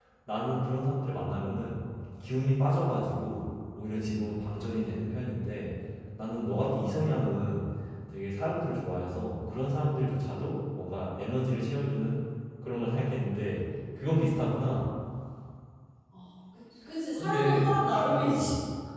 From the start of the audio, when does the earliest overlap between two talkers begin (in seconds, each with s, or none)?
17.1 s